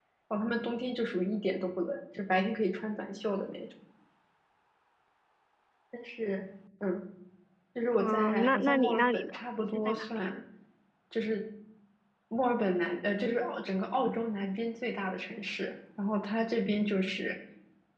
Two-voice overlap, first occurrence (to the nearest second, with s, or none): 8 s